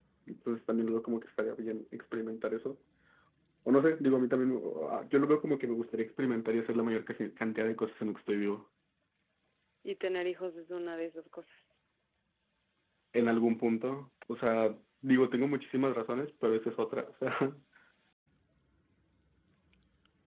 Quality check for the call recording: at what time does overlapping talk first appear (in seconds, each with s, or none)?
none